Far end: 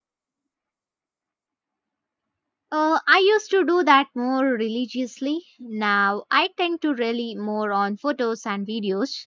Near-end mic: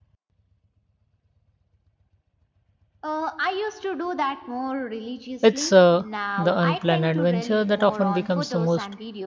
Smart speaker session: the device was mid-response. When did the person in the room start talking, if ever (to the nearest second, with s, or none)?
5 s